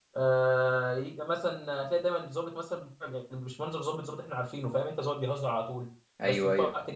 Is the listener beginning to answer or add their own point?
No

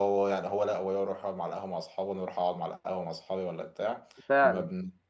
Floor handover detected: No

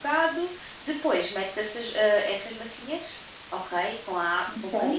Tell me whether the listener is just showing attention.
Yes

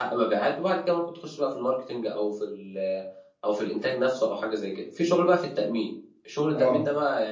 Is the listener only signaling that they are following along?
Yes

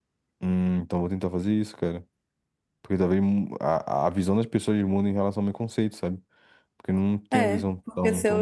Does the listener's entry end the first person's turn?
Yes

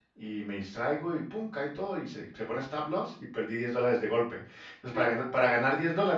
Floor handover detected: No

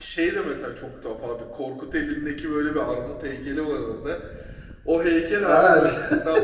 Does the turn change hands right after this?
No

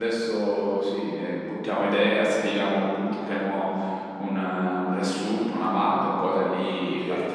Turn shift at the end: Yes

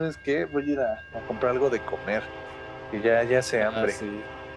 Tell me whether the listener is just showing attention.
No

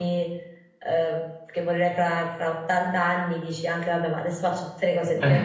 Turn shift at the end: Yes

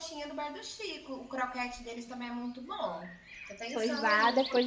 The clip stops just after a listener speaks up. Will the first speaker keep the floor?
No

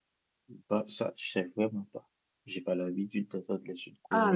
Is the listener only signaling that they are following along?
No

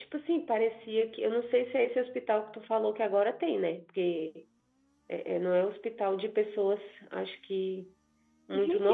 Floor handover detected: Yes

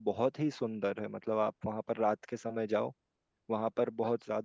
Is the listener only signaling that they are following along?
Yes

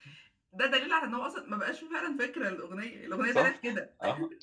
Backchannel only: No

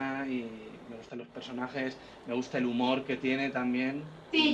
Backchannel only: No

